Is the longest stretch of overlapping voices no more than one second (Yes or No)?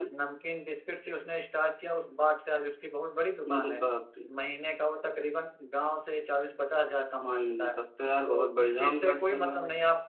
No